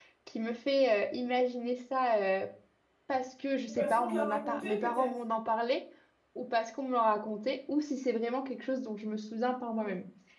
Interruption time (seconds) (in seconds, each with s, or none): 3.7 s